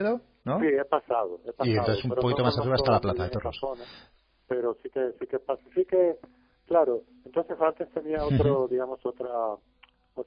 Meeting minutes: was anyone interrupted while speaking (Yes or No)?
Yes